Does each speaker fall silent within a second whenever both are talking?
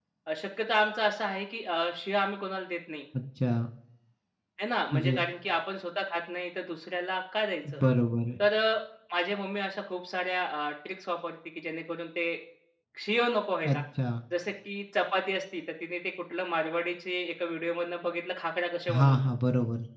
Yes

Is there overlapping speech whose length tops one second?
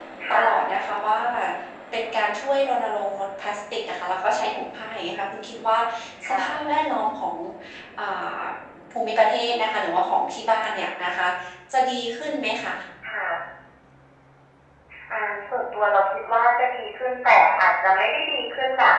No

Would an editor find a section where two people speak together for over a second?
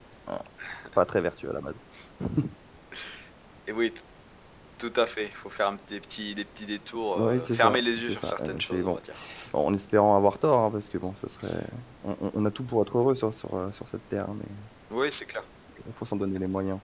Yes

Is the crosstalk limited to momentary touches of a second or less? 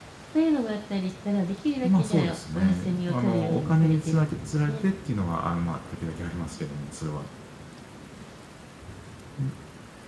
No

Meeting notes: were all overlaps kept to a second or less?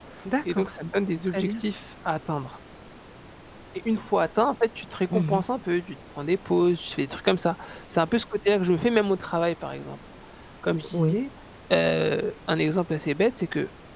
Yes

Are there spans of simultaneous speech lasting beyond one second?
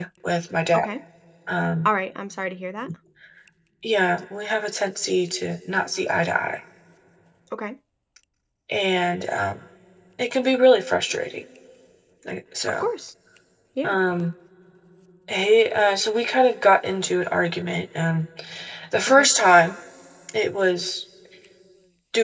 No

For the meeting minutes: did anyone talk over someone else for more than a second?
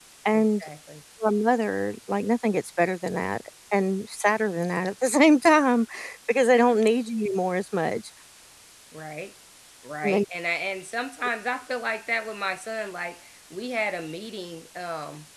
No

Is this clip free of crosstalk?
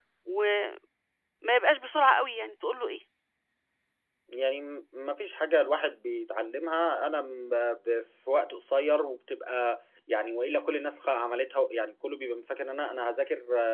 Yes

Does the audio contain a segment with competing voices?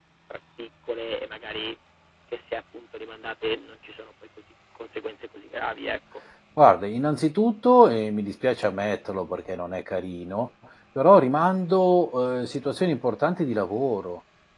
No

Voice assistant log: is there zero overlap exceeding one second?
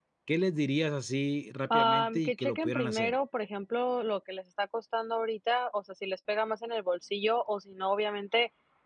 No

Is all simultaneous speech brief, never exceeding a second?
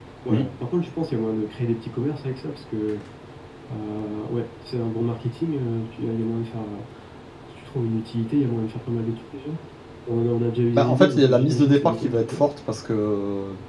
No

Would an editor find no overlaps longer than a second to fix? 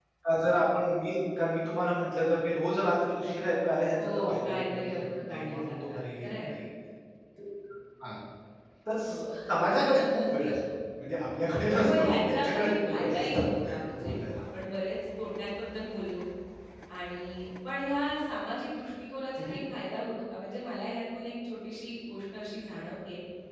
No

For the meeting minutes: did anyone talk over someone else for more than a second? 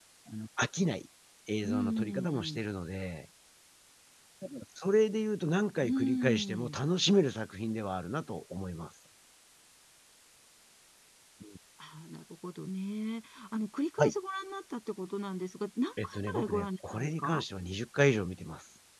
Yes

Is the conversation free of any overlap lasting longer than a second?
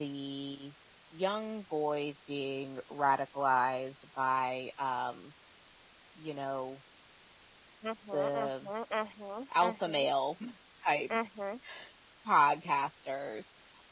Yes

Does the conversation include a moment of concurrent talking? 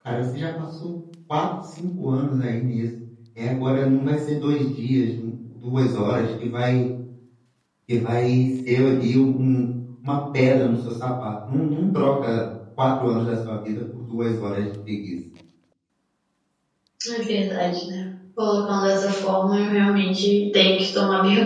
No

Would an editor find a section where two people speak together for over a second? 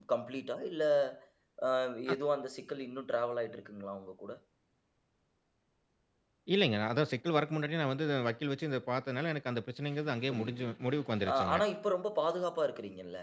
No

